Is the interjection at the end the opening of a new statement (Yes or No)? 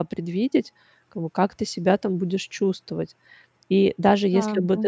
No